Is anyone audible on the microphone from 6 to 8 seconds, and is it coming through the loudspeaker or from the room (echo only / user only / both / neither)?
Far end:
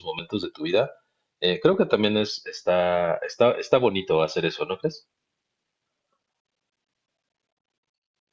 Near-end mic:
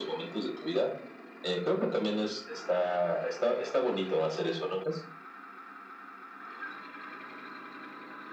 neither